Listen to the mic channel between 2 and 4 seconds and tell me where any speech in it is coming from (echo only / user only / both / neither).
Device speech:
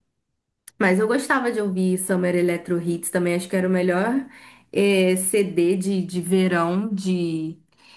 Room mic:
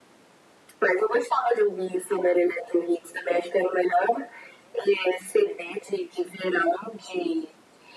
echo only